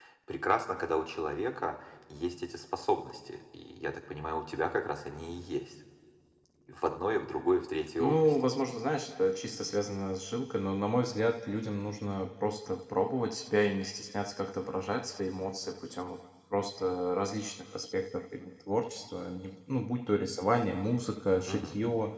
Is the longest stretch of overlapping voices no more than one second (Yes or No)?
Yes